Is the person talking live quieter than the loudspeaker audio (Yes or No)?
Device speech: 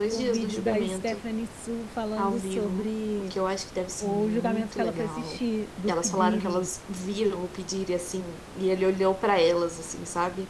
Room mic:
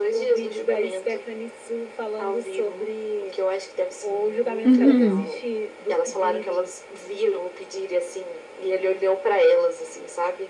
No